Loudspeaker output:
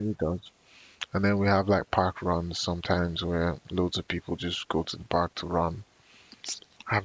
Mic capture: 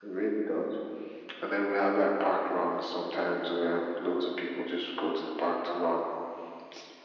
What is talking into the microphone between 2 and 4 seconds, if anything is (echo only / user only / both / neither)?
echo only